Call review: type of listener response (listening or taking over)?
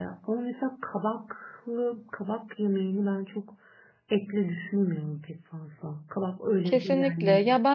taking over